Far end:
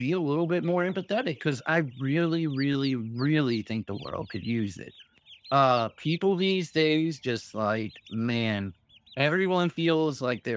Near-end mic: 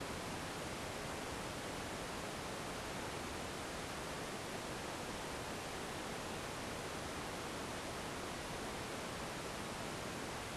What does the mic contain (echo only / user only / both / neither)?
neither